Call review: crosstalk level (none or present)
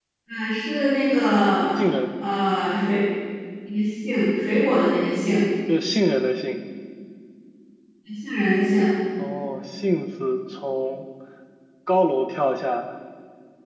none